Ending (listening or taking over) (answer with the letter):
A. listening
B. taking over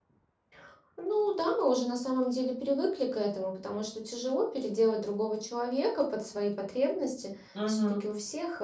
A